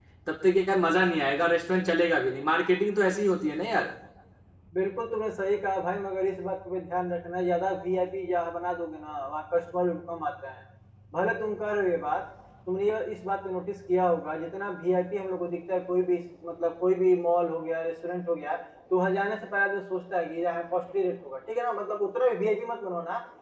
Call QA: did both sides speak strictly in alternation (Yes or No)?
Yes